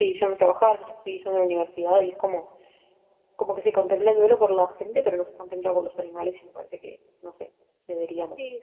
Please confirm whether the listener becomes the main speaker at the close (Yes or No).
Yes